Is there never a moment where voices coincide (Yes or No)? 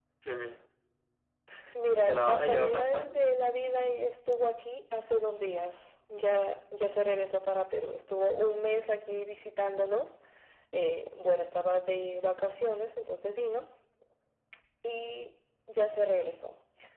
No